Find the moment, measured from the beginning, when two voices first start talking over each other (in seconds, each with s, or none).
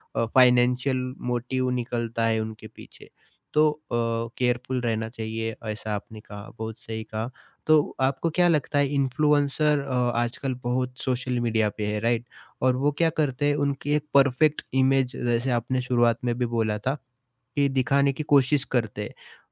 none